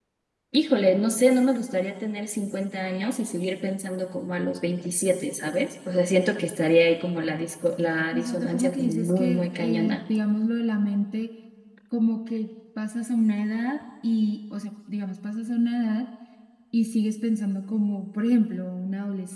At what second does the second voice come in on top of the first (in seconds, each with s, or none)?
8.1 s